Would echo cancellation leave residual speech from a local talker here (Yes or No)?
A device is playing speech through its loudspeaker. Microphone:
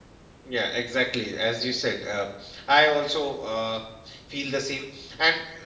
Yes